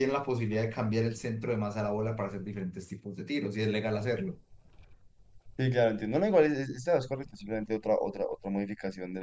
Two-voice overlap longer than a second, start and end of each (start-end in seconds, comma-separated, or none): none